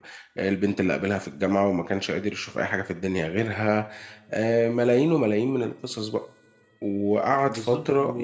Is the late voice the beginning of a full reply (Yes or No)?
Yes